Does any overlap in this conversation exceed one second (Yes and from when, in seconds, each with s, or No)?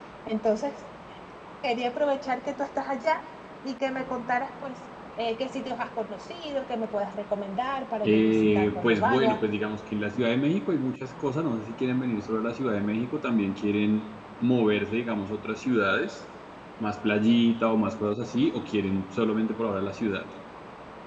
Yes, from 8.0 s